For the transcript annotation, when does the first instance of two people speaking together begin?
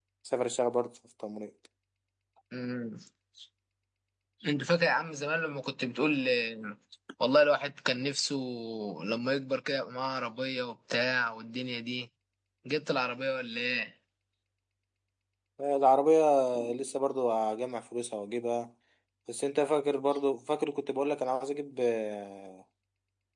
none

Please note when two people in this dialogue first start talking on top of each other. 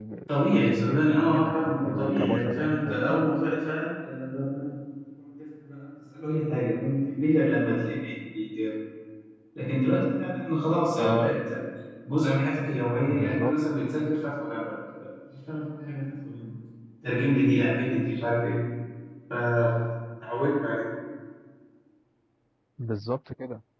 1 s

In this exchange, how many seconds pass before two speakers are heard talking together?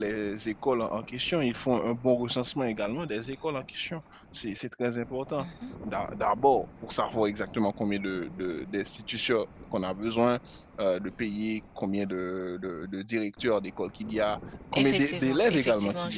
15 s

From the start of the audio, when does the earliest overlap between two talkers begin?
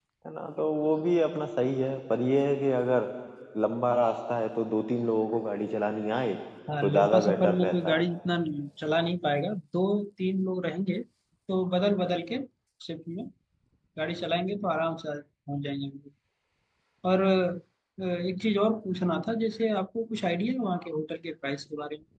7 s

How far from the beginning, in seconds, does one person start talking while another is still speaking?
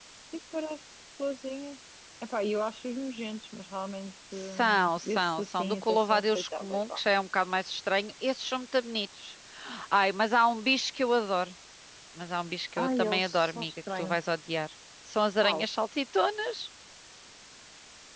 5 s

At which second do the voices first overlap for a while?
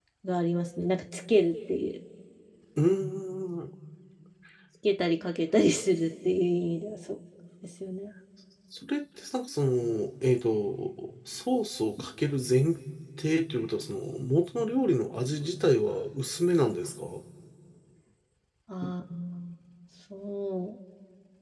none

